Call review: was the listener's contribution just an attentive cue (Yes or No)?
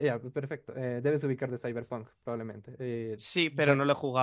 No